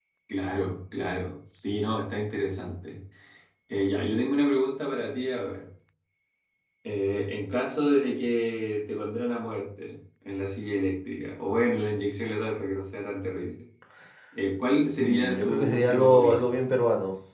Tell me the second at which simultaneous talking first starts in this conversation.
14.9 s

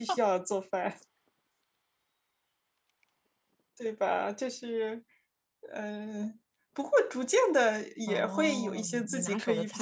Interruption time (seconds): 8.1 s

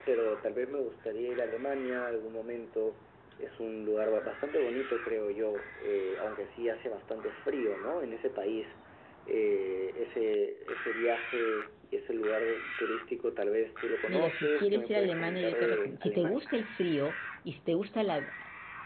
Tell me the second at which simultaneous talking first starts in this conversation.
14.1 s

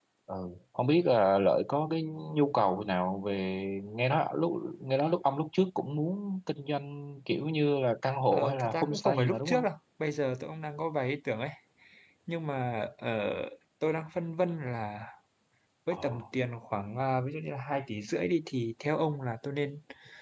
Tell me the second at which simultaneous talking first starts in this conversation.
8.3 s

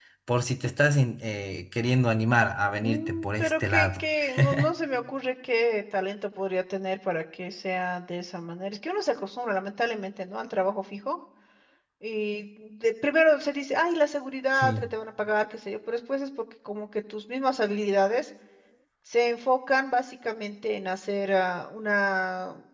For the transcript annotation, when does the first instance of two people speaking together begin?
2.8 s

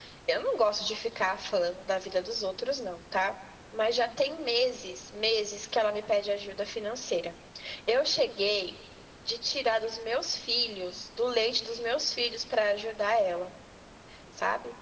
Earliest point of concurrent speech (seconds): none

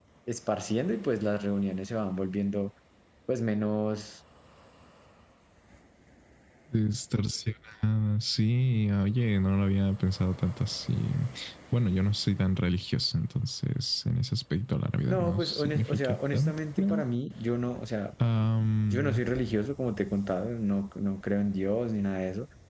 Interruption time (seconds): 15.0 s

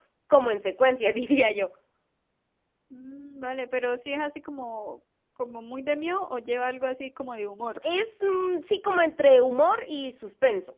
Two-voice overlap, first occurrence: none

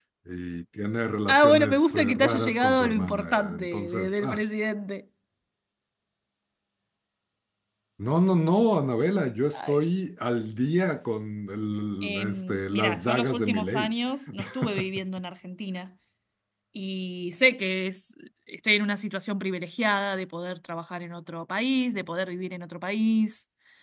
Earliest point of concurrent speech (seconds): 1.3 s

